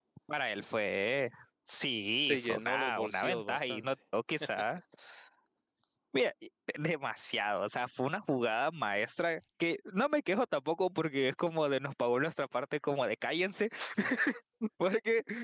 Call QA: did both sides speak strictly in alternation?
No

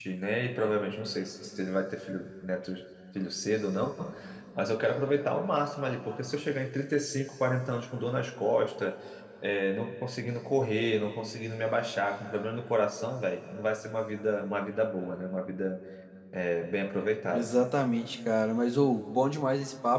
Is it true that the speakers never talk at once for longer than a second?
Yes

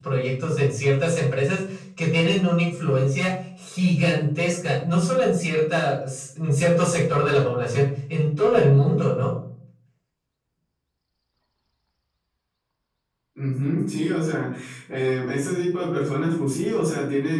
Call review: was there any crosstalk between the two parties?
No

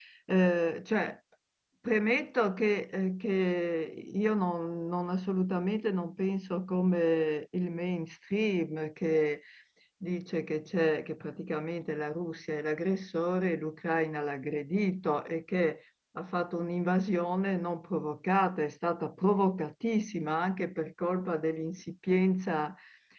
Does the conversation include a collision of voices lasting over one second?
No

